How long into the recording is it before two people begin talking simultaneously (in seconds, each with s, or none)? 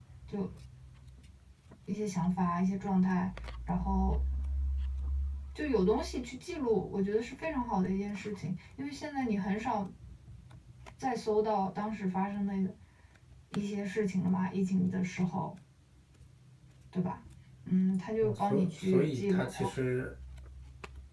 18.2 s